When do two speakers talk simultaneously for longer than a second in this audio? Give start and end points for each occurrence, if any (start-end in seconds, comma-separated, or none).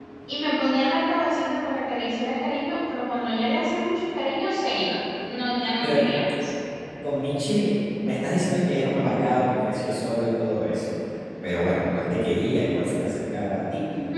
none